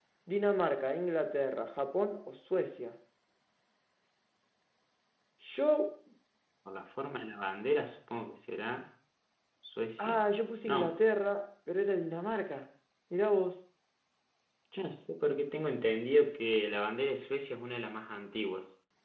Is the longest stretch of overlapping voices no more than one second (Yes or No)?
Yes